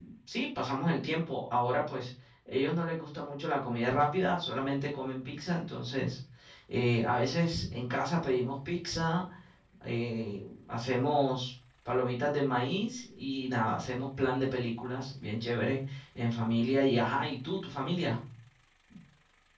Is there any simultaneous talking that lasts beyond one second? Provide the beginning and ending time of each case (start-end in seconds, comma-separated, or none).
none